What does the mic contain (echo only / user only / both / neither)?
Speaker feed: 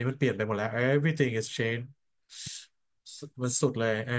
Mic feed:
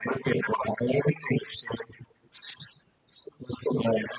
echo only